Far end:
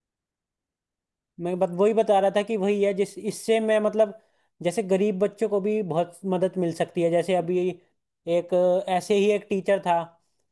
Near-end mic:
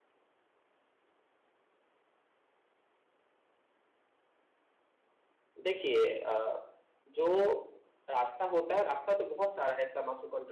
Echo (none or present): none